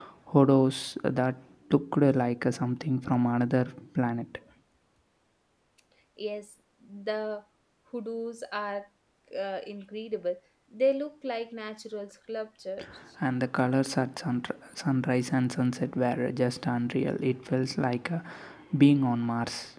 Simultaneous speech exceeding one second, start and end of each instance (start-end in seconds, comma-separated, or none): none